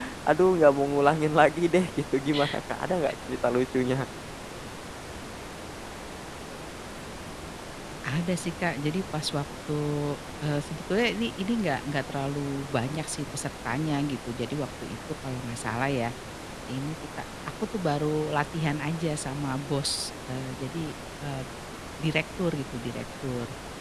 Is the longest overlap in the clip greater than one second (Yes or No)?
No